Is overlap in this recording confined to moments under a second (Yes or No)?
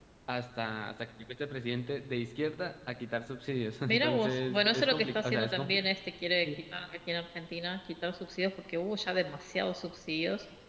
No